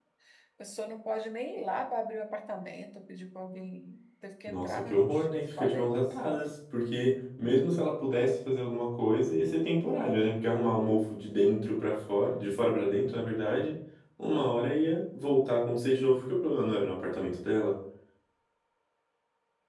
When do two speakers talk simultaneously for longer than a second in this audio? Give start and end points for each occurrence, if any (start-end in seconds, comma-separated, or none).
4.5-6.0